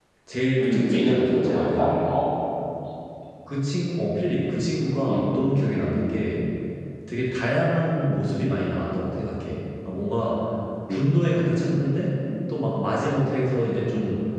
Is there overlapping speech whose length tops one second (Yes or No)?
Yes